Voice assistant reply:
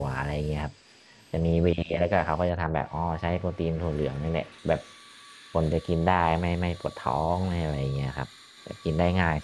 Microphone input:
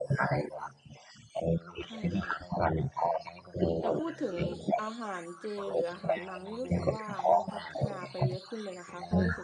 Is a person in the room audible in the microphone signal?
Yes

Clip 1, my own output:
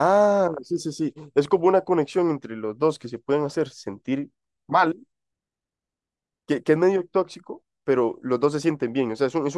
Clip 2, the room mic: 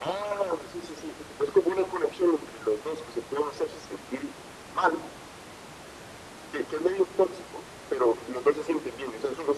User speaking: No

